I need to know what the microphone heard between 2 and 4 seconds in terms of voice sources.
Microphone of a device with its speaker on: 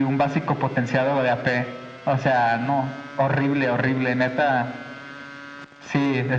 echo only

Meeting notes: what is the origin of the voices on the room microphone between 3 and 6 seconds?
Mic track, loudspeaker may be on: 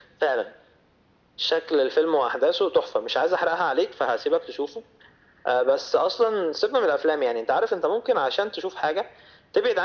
echo only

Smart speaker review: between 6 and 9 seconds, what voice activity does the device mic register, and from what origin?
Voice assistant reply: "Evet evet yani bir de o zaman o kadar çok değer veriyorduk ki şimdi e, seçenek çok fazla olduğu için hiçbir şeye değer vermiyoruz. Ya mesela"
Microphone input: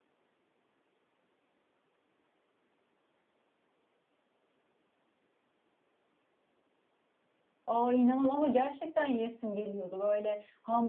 user only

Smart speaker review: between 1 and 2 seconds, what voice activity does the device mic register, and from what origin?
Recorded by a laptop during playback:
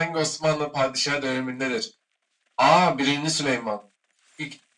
echo only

